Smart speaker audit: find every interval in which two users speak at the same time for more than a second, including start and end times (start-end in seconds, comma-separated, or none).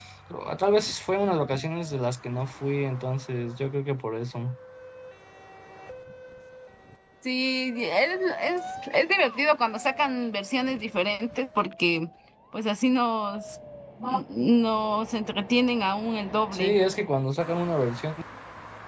none